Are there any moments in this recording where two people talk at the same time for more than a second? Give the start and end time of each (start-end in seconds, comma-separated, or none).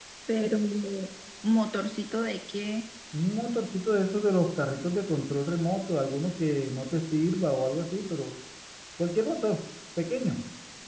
none